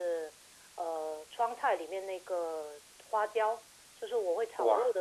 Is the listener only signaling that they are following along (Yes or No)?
Yes